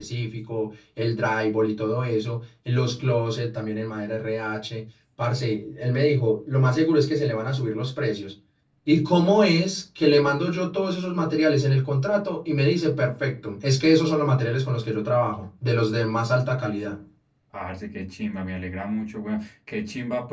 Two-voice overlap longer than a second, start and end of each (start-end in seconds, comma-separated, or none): none